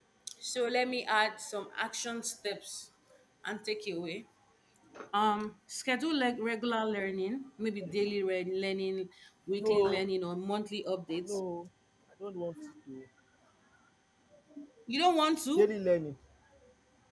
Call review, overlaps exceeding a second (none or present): none